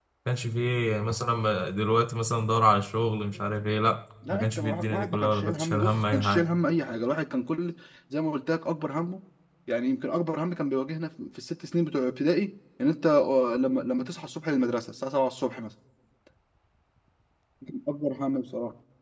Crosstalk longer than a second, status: present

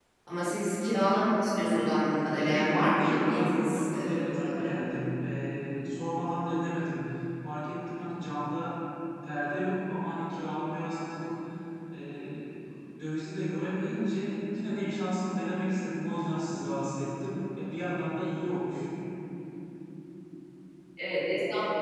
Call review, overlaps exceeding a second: present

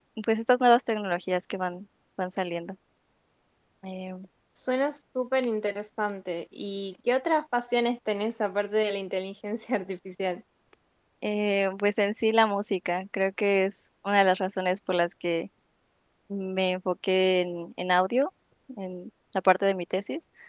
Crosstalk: none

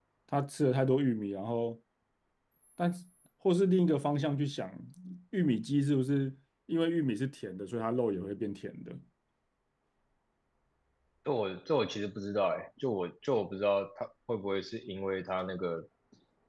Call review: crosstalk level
none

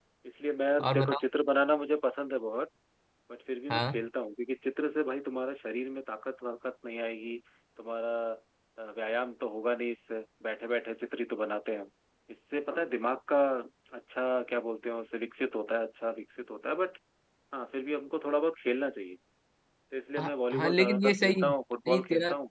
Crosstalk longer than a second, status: present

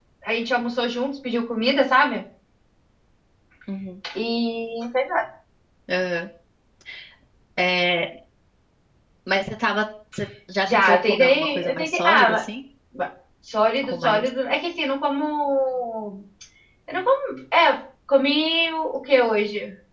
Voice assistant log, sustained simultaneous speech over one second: present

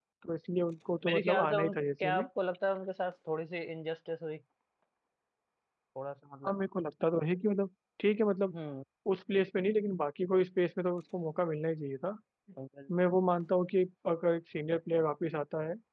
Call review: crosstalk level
present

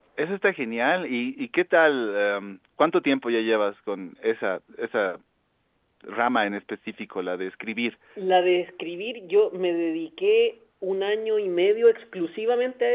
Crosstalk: none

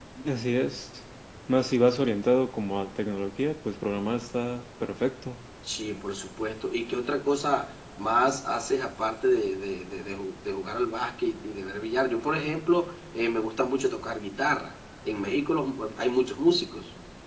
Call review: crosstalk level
none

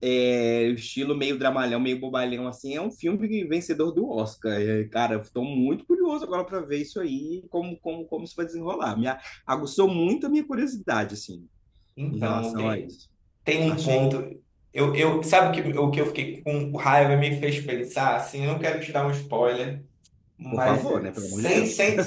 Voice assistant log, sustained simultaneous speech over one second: present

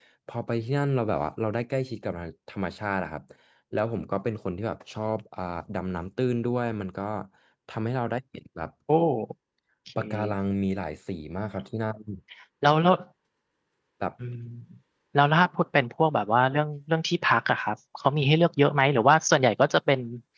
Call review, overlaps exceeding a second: none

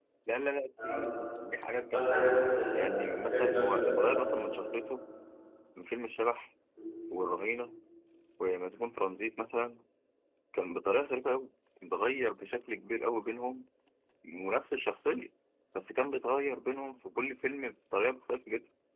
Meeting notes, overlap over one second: present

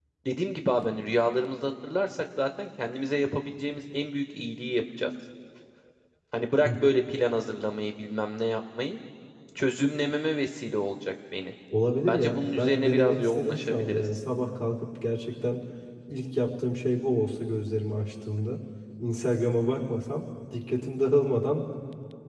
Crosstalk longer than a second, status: present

